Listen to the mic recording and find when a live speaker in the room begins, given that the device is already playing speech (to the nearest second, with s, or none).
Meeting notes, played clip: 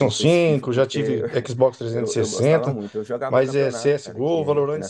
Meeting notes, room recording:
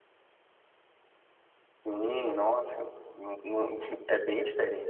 2 s